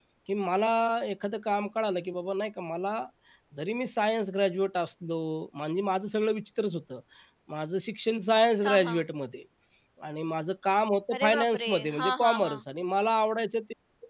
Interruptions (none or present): present